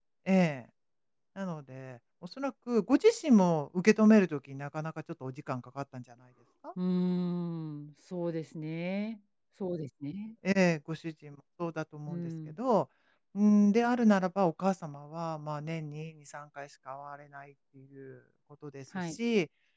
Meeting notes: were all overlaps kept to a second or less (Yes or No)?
Yes